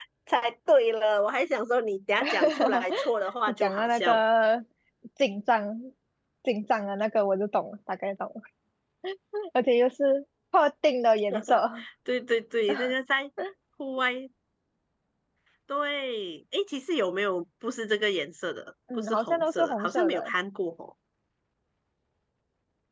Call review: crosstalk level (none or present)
present